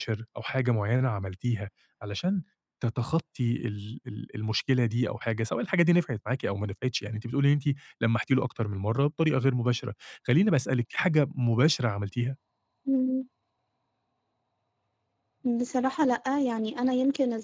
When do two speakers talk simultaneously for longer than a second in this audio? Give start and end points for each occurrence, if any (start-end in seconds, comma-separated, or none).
none